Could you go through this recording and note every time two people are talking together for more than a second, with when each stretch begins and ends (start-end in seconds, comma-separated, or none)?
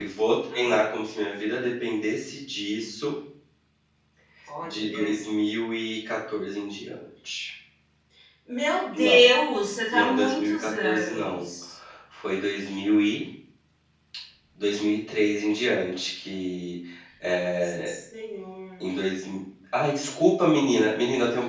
9.9-11.4